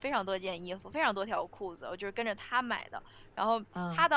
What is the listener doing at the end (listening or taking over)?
listening